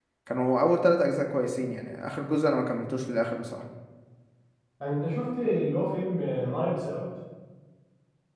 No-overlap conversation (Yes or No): Yes